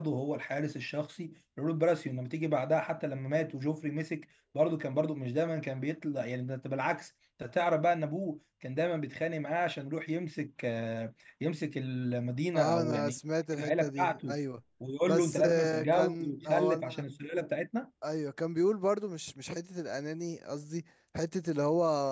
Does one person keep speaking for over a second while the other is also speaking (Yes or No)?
Yes